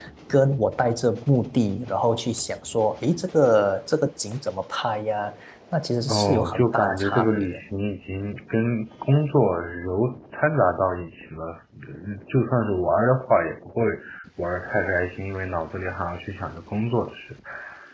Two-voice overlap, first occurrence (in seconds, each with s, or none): 6.1 s